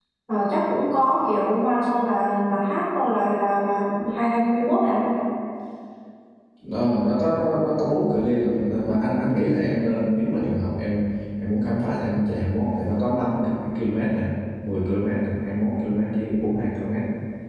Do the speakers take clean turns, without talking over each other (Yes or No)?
Yes